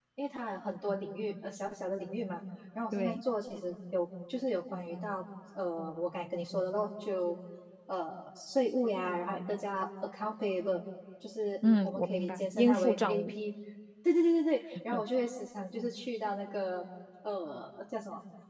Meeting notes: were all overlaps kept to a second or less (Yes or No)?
No